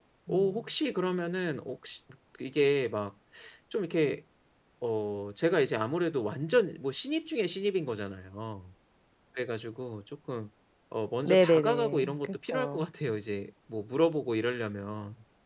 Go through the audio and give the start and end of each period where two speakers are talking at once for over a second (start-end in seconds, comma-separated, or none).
11.2-12.9